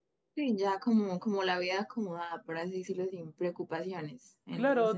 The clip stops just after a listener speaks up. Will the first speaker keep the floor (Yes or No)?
No